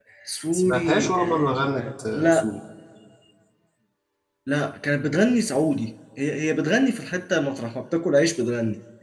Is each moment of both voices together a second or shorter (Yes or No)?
No